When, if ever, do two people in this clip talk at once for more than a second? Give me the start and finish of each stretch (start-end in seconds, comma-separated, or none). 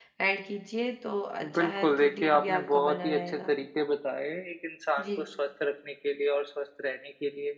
1.6-3.5